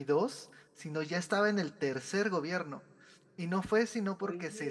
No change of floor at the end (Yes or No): Yes